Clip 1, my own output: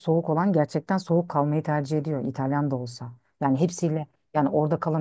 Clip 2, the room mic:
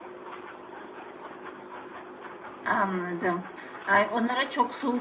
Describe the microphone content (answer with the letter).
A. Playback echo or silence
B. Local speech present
B